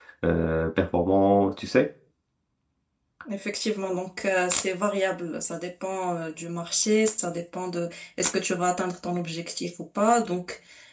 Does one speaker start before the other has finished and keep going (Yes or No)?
No